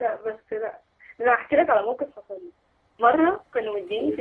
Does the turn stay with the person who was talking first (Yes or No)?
Yes